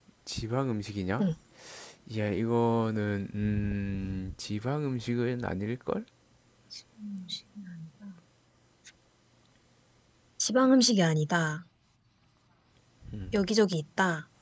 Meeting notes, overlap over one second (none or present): none